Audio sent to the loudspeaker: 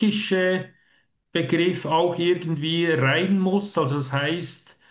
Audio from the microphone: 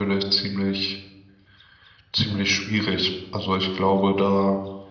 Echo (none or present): none